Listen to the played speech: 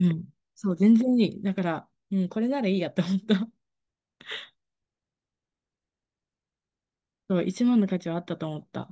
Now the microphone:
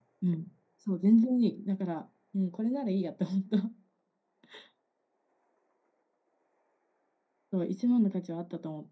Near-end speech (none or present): none